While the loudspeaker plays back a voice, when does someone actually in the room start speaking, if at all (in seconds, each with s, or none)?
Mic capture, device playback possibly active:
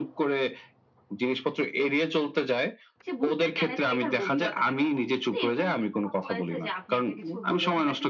3.0 s